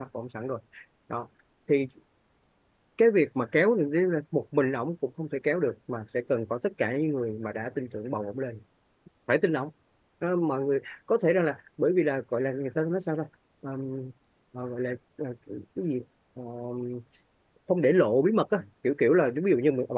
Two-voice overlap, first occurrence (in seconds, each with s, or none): none